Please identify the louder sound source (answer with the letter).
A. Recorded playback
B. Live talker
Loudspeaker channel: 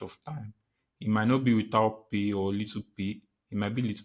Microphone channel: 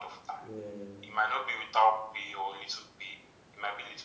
A